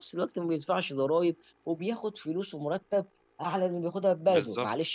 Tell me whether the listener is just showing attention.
Yes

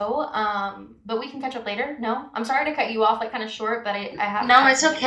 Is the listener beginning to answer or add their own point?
Yes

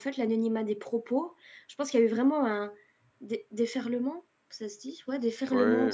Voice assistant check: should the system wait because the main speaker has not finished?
Yes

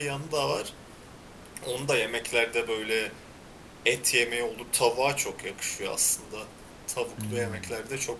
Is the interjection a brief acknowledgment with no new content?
Yes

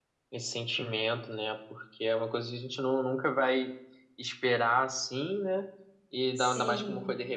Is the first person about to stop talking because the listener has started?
No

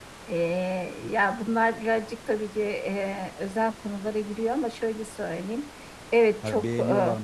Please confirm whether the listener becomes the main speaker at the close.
Yes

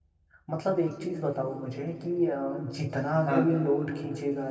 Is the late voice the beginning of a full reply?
No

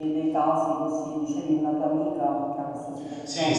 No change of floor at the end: No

